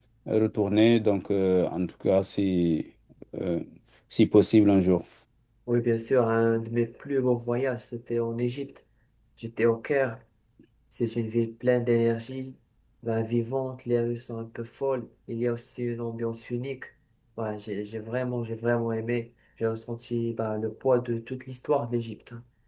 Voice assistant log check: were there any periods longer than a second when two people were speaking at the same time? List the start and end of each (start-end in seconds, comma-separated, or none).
none